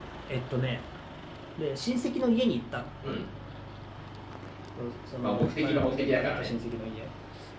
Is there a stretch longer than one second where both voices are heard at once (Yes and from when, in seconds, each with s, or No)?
Yes, from 5.2 s